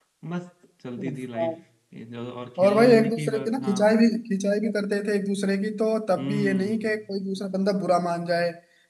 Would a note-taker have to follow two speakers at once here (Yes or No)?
Yes